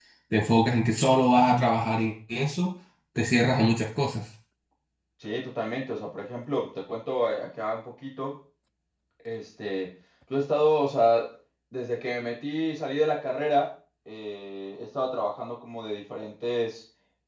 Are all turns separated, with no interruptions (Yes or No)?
Yes